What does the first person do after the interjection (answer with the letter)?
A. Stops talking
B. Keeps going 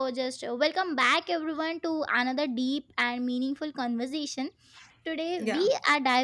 B